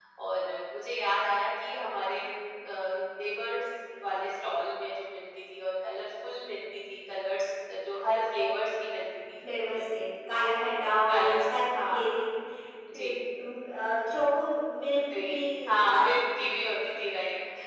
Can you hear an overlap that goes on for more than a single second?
Yes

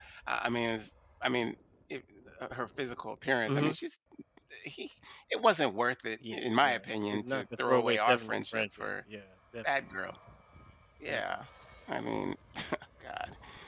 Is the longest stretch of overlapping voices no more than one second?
No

